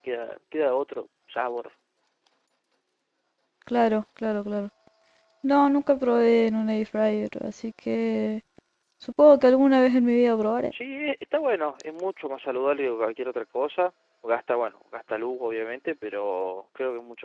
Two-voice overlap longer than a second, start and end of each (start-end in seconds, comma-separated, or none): none